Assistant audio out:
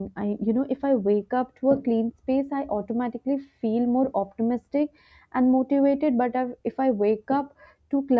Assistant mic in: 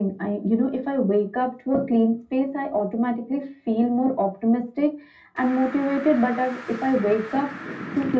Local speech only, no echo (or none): none